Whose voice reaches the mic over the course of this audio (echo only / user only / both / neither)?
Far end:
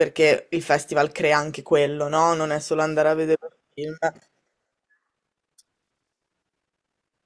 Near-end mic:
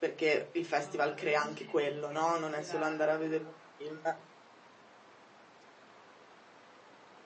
both